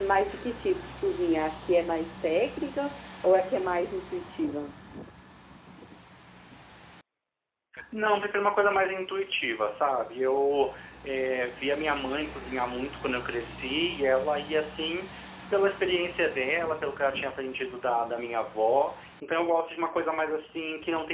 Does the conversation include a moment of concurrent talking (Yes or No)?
No